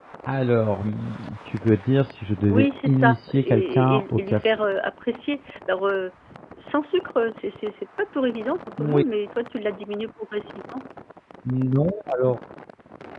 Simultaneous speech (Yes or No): Yes